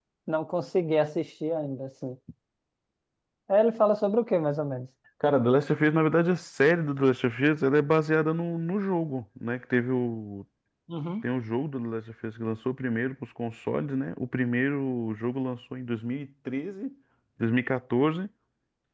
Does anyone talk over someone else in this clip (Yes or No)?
No